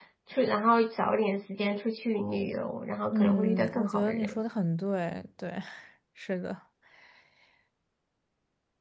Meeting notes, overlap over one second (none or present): present